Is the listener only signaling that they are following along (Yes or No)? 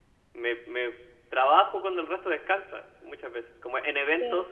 Yes